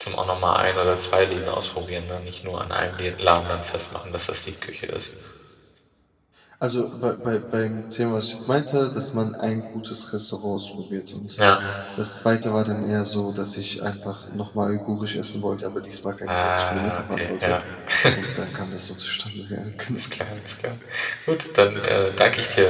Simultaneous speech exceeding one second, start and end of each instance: 16.3-17.6

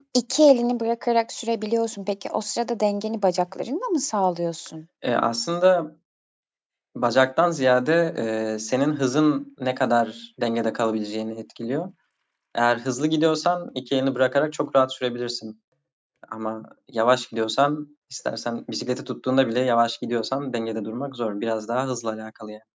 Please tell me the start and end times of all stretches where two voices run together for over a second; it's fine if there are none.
none

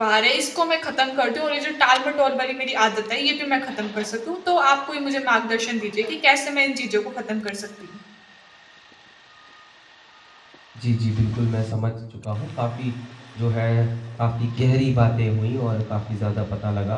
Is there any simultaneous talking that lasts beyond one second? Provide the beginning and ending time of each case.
none

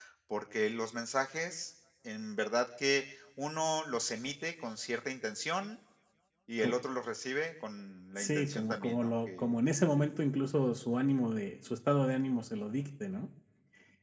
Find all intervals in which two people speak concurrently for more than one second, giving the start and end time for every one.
8.2-9.5

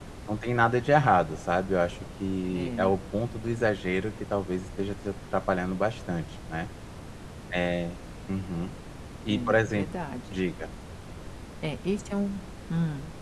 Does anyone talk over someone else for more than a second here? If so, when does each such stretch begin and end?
none

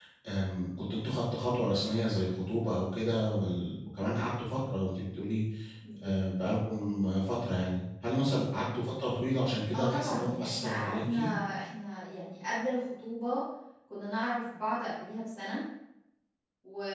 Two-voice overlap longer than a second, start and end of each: 9.7-11.2

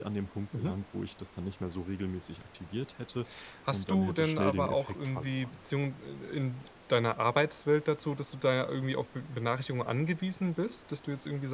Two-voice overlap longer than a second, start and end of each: 3.7-5.6

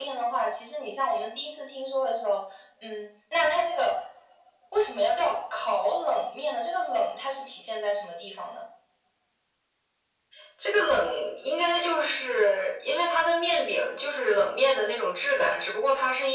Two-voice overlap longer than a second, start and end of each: none

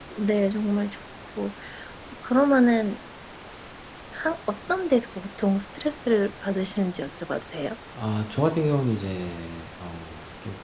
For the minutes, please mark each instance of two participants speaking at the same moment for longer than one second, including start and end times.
none

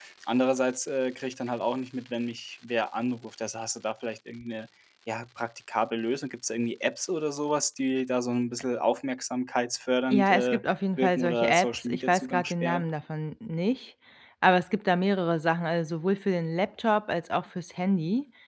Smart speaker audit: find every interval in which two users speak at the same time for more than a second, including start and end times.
11.0-12.8

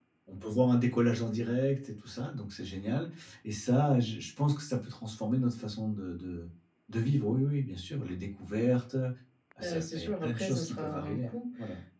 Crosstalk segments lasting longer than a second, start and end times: 9.6-11.3

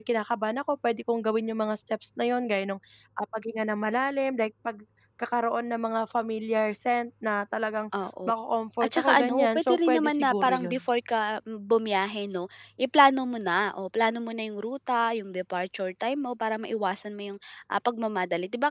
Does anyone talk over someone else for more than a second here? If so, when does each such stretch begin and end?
8.8-10.8

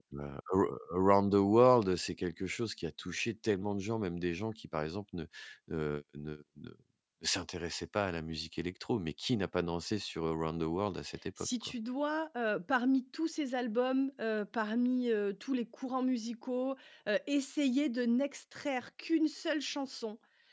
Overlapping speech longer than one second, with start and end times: none

